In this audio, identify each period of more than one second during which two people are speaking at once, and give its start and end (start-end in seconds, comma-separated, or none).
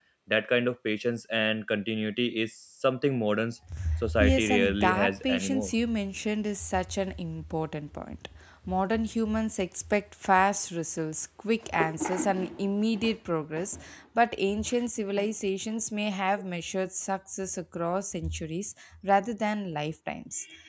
4.2-5.7